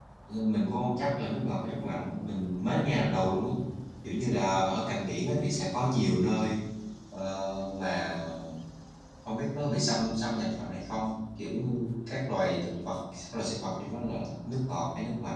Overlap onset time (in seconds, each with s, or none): none